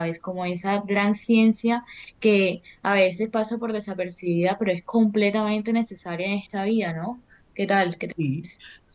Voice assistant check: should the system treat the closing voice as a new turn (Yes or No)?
Yes